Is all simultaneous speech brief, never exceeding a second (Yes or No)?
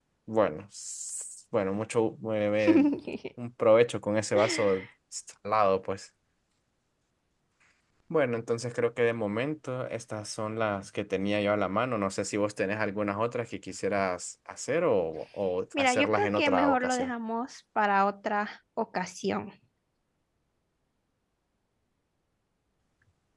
No